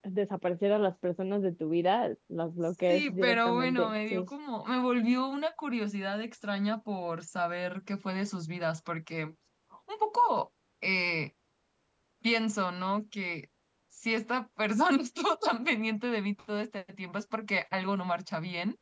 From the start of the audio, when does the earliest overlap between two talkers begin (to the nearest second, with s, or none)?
3 s